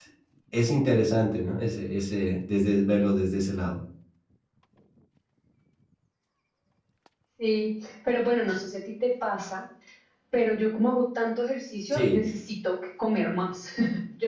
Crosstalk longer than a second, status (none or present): none